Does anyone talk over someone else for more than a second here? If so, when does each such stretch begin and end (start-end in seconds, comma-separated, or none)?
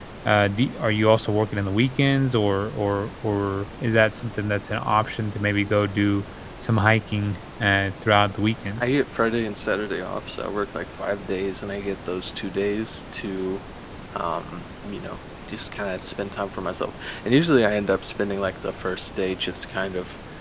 none